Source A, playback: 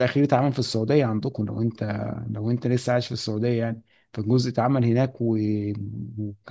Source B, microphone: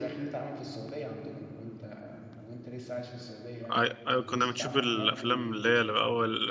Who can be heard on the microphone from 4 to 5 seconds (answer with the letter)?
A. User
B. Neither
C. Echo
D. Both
D